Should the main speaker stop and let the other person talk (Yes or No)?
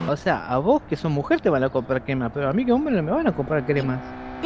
Yes